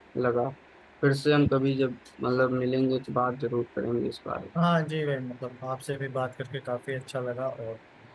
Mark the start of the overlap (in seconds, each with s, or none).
none